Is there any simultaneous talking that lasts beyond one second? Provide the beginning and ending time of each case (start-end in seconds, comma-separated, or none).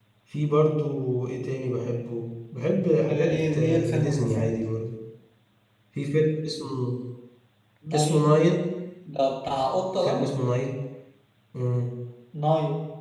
3.1-4.5